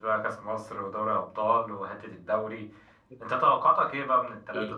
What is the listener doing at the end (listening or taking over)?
listening